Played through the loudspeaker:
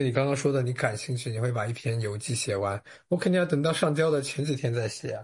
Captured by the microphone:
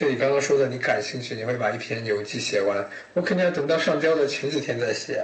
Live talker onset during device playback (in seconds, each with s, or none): none